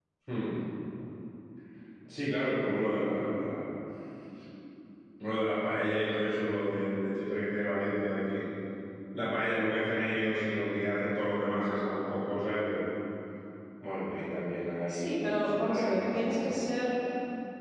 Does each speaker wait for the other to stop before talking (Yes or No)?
No